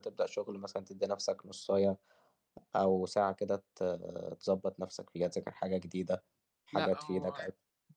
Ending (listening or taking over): taking over